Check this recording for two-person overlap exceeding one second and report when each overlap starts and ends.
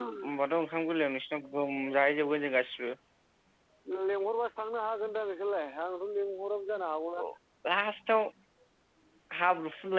none

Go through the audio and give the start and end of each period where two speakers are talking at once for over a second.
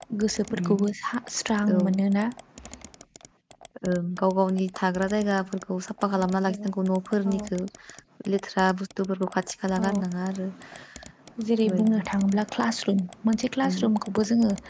none

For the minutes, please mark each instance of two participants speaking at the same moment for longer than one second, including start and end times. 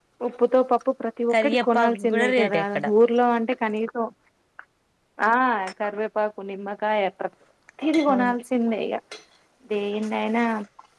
1.3-2.6

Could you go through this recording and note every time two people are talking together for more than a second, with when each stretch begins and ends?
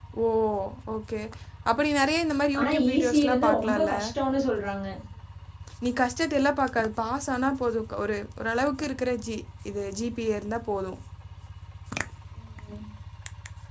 2.6-3.9

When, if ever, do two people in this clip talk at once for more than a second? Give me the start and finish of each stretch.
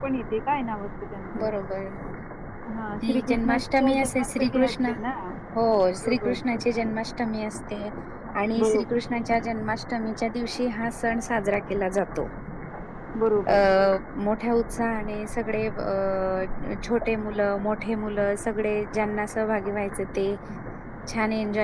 3.1-4.9

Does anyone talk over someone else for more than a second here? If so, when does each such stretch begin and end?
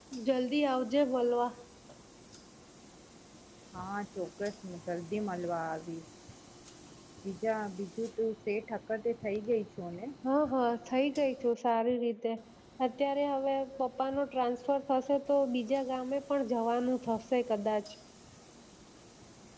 none

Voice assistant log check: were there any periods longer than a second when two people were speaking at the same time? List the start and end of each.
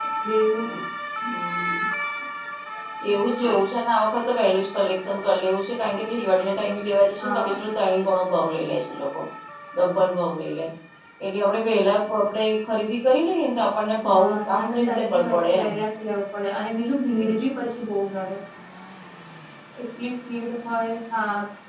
14.1-15.7

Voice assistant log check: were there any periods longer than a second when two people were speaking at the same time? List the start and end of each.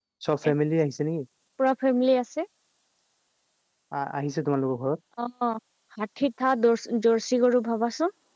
none

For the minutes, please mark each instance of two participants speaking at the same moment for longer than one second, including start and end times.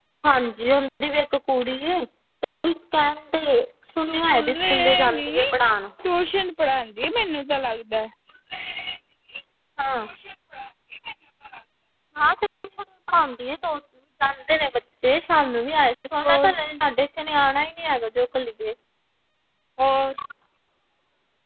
4.1-5.4

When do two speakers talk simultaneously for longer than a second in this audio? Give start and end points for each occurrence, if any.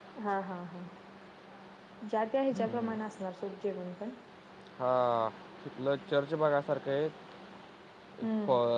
none

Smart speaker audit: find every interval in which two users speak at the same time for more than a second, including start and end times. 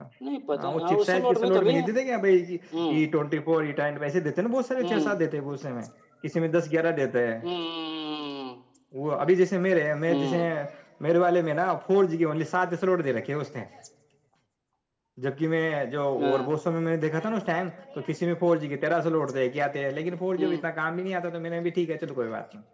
0.5-1.7

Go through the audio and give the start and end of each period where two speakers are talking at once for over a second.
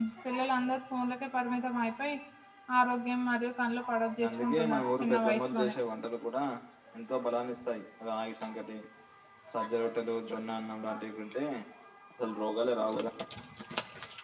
4.3-5.8

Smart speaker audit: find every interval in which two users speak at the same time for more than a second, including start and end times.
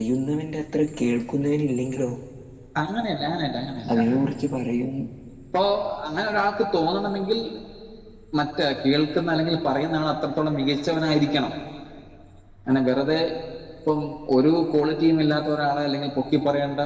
none

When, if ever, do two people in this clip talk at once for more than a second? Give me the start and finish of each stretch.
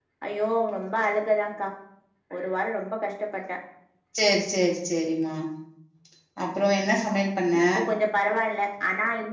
none

